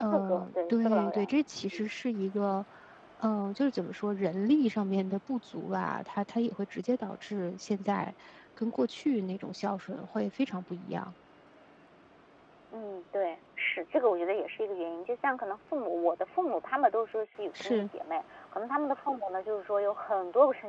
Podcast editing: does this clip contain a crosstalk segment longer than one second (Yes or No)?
Yes